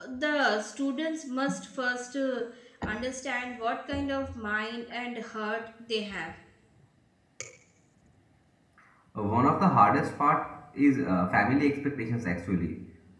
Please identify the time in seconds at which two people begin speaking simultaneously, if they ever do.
none

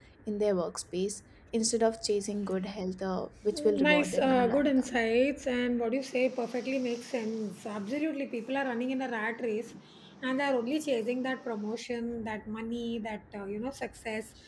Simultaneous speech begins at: 3.5 s

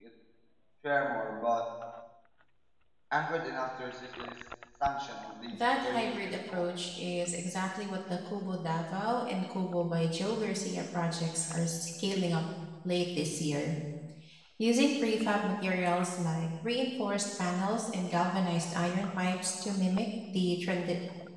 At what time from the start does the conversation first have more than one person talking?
5.5 s

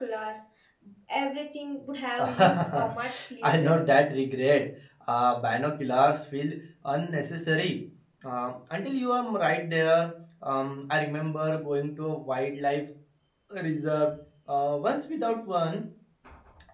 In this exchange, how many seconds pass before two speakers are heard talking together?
2.2 s

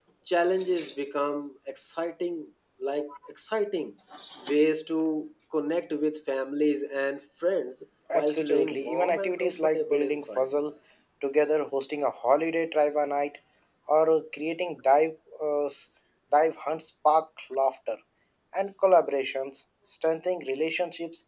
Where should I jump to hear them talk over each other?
8.1 s

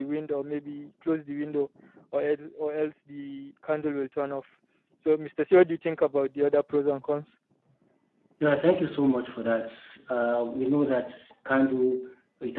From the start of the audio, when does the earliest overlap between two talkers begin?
none

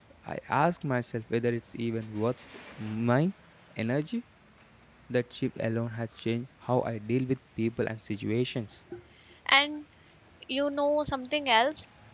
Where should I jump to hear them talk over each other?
none

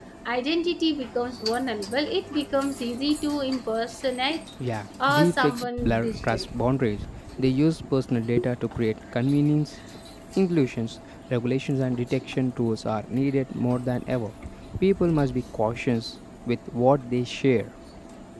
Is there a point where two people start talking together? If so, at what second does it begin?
5.1 s

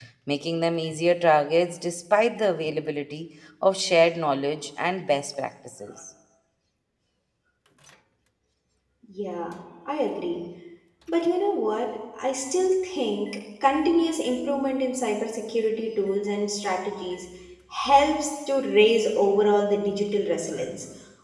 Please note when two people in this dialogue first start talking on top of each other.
none

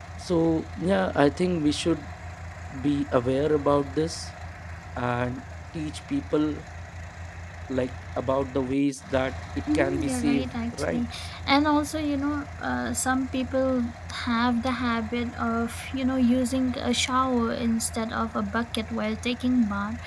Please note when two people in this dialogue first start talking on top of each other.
9.7 s

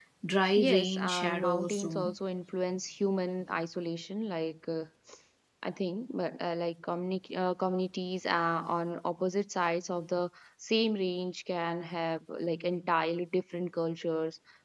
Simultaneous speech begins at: 0.6 s

